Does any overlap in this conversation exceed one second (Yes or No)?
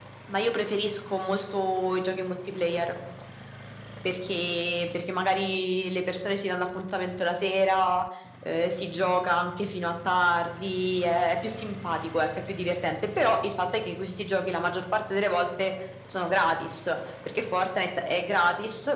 No